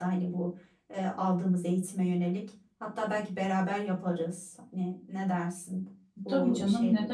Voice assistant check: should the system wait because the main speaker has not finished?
No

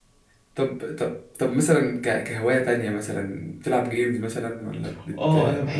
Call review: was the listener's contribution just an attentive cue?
No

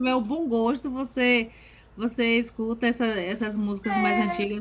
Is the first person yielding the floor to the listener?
No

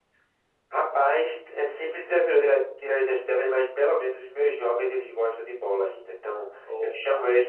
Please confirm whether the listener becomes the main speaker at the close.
No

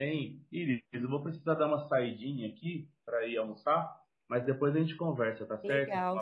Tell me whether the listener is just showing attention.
No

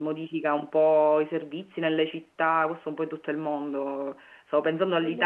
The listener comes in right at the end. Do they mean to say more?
No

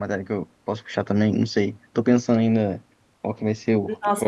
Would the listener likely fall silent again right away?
No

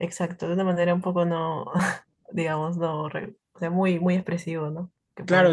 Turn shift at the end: Yes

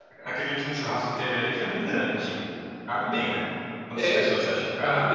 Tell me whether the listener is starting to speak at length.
Yes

